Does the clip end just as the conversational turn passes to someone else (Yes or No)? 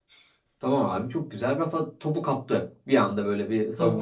Yes